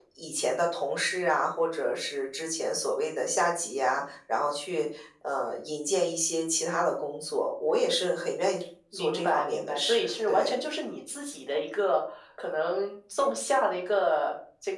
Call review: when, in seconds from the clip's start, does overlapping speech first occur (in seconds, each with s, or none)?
8.9 s